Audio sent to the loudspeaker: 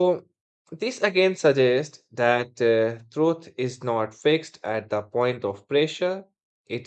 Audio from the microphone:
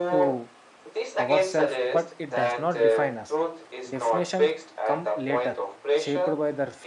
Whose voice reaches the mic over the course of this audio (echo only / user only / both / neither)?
both